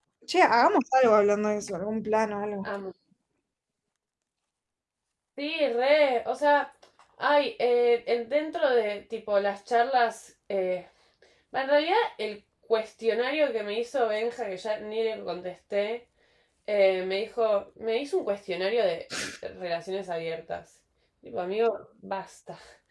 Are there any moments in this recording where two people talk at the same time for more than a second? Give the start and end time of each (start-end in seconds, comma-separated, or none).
none